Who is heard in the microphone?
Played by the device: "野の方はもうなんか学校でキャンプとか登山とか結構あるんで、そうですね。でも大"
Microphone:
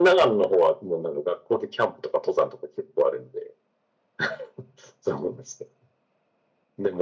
echo only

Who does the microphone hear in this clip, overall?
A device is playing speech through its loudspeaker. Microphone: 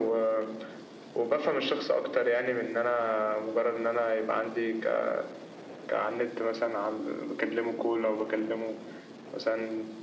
echo only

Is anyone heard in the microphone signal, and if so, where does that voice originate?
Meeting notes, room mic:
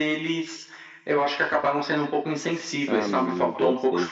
both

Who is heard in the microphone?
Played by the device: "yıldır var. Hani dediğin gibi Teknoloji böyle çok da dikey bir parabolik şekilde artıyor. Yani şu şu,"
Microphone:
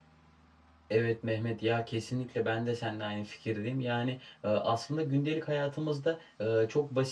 user only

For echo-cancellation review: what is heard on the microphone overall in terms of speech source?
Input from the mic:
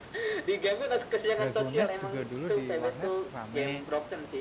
both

